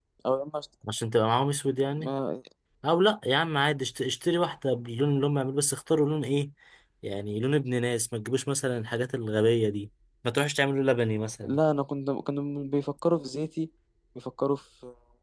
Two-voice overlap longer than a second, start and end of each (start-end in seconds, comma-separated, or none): none